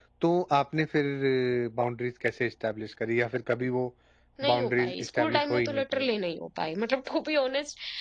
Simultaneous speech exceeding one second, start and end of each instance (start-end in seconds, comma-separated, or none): 4.5-6.0